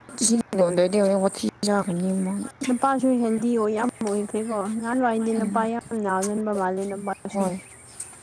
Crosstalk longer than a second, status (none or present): none